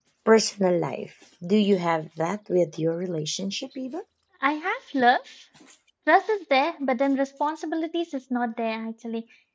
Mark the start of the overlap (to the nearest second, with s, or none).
none